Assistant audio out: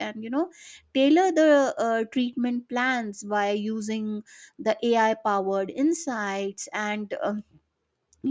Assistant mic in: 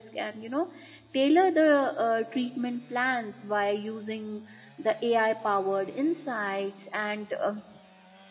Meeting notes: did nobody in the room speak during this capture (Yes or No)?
Yes